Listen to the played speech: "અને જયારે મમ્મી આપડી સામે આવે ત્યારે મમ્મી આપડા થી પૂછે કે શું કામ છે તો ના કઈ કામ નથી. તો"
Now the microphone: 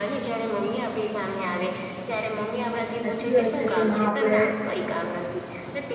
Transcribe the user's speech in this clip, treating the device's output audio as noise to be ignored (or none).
સાચી વાત છે કે માં આપડે